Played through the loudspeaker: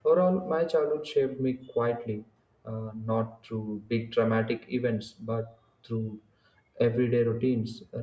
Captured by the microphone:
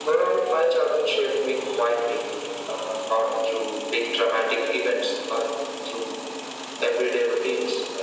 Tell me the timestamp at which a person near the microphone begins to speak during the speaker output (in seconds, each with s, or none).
none